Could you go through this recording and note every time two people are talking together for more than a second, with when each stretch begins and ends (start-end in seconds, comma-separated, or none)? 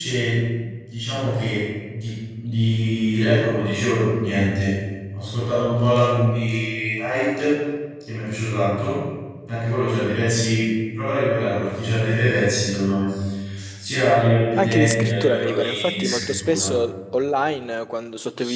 14.6-16.7